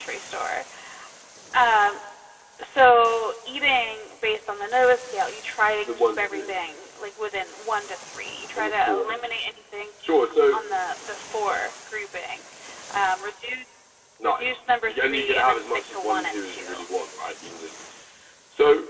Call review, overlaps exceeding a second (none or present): present